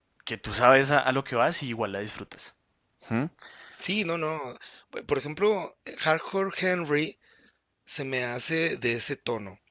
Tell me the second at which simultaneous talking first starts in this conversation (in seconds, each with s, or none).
none